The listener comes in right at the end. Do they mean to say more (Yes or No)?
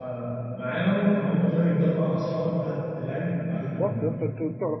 Yes